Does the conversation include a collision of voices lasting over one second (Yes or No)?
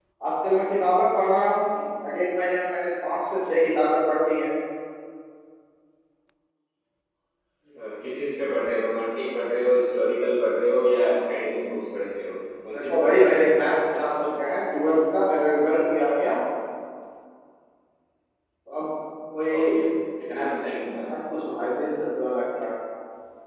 Yes